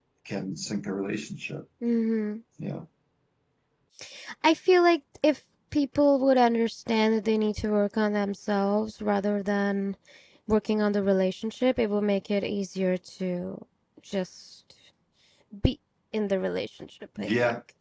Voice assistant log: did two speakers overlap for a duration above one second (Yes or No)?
No